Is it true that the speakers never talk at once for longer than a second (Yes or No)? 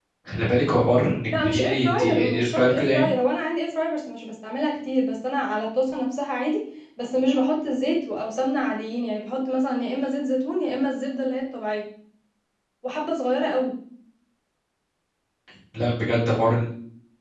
No